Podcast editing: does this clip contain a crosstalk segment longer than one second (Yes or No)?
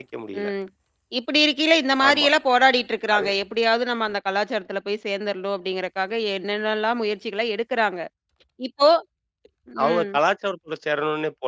No